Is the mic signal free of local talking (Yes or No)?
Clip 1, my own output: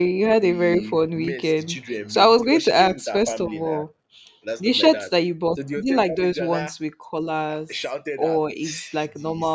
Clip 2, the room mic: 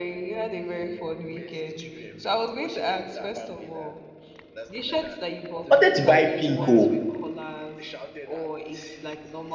No